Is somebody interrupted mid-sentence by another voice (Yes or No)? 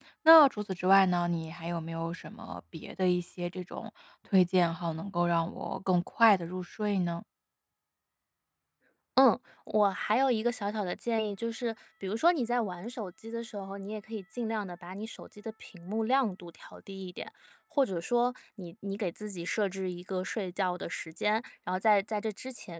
No